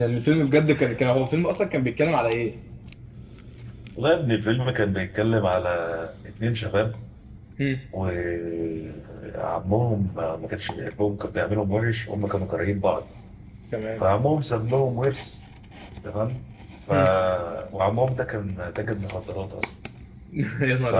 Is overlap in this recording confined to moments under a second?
Yes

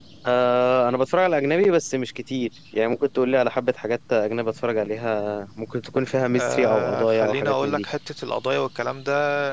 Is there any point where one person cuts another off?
Yes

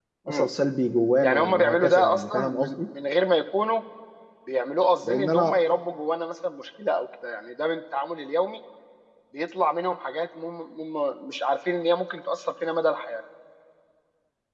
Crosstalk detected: Yes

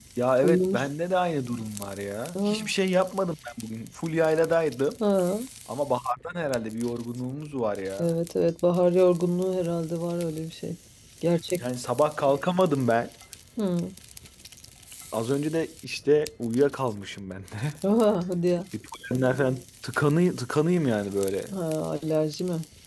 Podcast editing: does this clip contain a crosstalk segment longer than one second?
No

